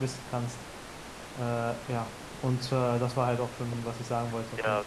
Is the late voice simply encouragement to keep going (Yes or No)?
No